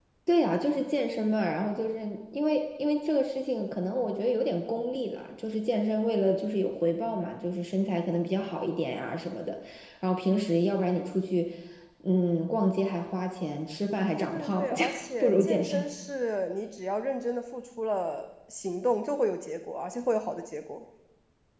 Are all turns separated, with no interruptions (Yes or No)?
No